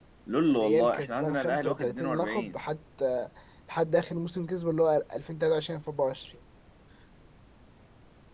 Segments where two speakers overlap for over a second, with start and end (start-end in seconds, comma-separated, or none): 0.5-2.6